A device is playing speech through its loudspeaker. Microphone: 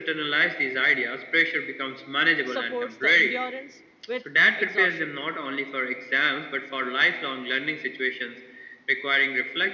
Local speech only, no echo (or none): supports the endurance with exhaustion.